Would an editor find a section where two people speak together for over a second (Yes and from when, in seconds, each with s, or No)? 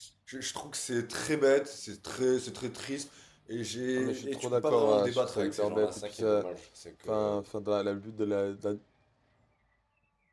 Yes, from 4.0 s